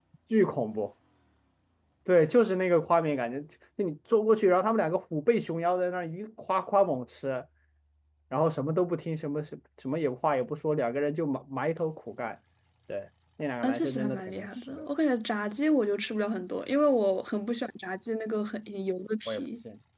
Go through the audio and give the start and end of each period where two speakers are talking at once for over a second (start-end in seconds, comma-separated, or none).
13.6-14.8